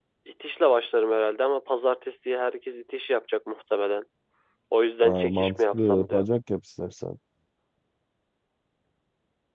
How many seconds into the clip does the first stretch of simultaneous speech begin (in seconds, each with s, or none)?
5.0 s